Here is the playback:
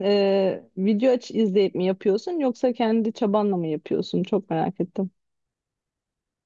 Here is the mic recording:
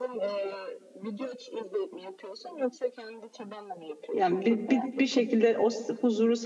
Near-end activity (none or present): present